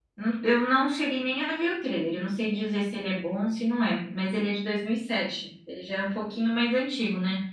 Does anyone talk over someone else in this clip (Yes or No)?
No